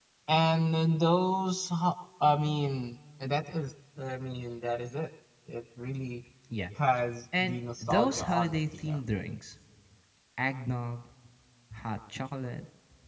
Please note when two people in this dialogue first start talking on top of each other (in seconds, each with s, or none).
7.4 s